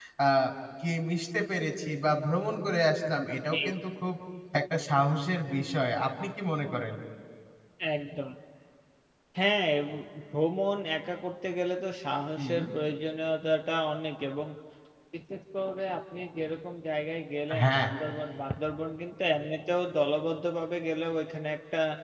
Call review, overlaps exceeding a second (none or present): none